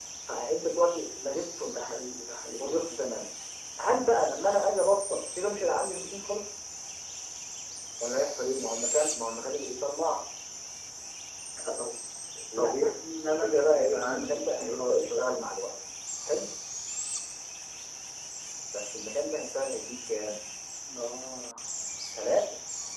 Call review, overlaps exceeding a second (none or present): present